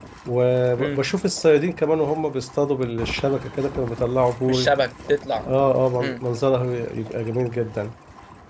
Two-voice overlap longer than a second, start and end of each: none

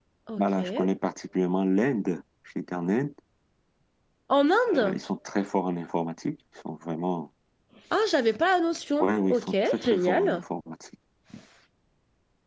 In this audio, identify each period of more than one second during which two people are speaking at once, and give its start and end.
9.0-10.4

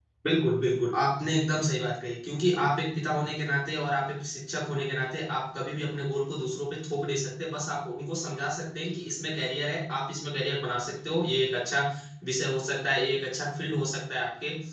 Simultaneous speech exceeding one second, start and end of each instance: none

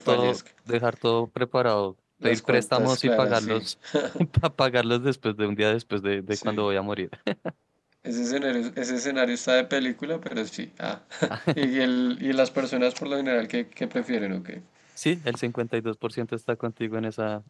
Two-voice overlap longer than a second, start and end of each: 2.2-3.6

